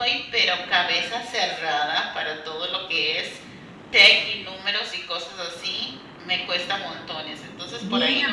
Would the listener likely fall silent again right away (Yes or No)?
No